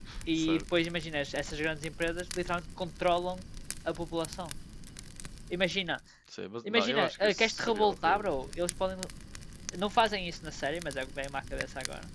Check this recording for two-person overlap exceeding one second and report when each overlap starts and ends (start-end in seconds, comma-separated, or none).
6.7-8.3